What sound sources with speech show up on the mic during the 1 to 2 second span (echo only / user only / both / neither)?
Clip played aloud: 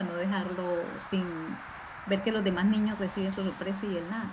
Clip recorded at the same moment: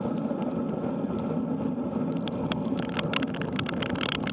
neither